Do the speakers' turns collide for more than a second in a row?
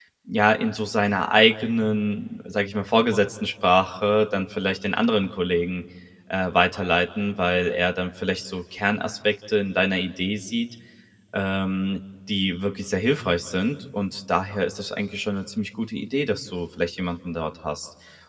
No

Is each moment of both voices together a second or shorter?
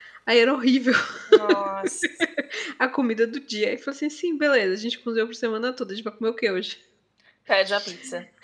Yes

